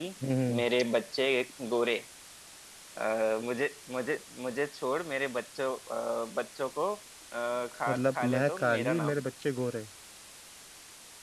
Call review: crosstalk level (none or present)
present